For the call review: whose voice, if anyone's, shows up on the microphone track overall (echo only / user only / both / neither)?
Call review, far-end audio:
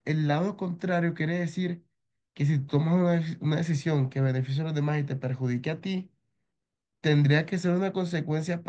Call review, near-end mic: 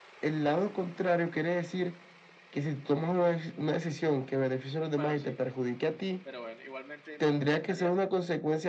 both